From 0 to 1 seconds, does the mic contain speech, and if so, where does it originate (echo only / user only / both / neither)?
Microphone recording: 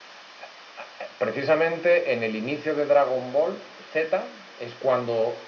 neither